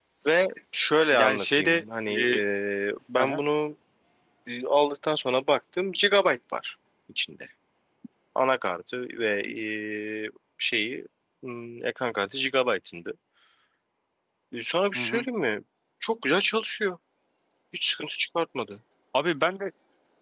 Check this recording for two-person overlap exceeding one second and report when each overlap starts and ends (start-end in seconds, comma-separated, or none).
1.1-2.4